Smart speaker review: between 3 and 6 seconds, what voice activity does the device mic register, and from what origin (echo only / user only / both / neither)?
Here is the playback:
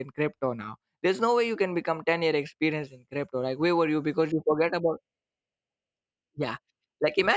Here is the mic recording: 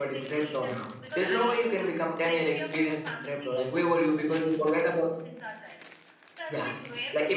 both